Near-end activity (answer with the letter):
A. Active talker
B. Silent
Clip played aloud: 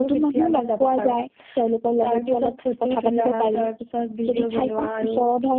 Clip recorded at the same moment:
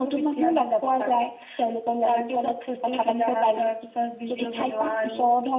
B